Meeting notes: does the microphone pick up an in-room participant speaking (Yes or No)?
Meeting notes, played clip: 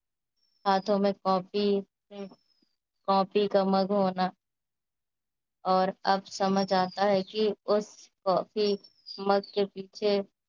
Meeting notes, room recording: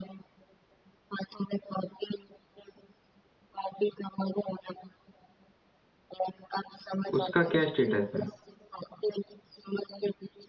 Yes